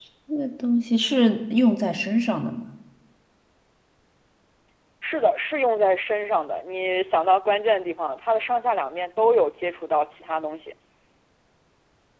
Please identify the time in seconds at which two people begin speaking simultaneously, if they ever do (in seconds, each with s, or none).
none